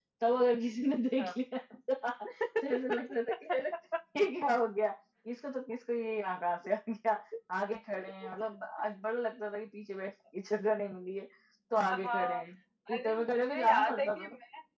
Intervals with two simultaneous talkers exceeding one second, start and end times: 12.9-14.2

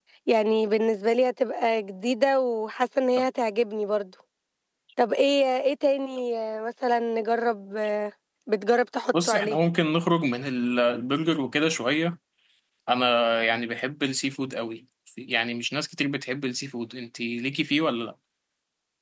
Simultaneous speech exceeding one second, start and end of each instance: none

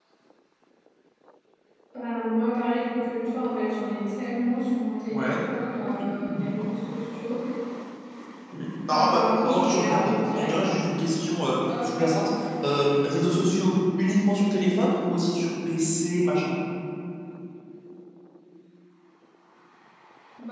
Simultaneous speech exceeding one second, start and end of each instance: 8.9-10.5

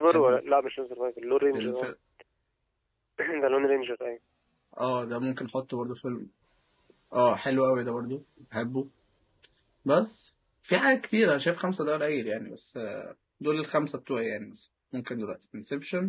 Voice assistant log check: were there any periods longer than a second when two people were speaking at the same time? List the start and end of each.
none

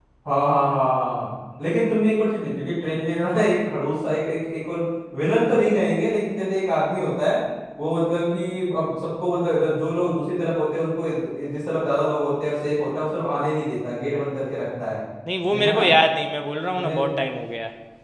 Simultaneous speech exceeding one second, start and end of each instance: none

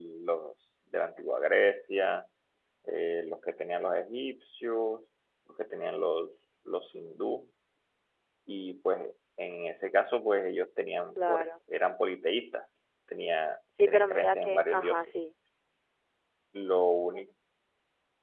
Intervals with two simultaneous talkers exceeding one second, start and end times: 13.8-15.1

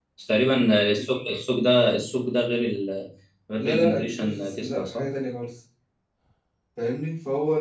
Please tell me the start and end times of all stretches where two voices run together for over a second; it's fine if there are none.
3.6-5.0

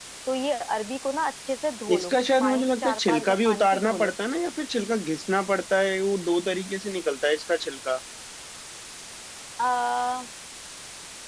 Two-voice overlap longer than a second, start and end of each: 1.9-4.1

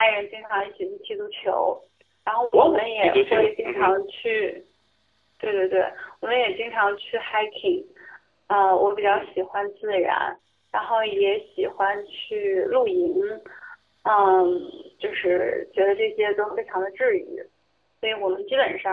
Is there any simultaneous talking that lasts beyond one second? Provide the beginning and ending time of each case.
2.5-4.0

